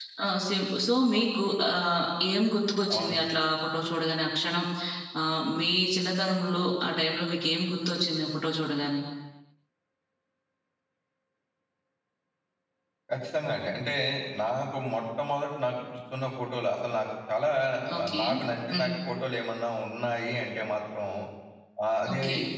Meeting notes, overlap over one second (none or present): none